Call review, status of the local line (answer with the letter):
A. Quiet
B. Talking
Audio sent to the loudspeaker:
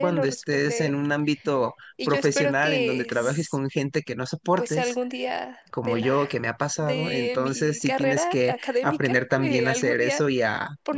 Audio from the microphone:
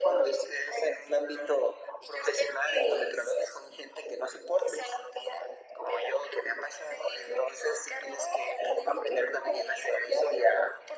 A